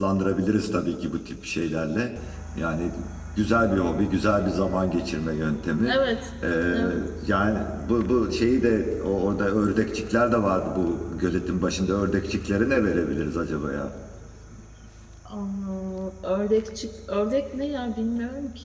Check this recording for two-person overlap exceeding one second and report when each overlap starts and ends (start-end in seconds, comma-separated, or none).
none